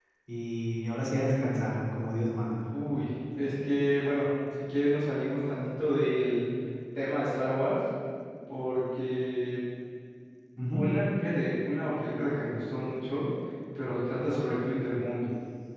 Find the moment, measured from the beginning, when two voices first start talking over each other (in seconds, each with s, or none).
none